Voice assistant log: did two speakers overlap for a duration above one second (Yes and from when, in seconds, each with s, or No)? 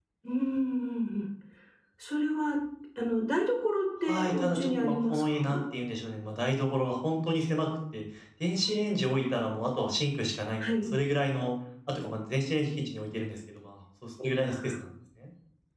Yes, from 4.1 s